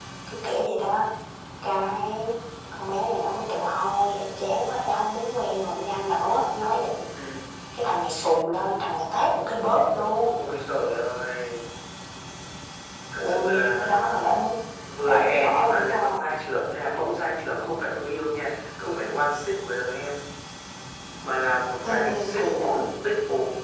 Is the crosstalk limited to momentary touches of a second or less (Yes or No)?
No